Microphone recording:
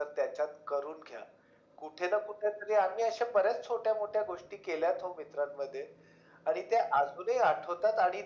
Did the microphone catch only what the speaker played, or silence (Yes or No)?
Yes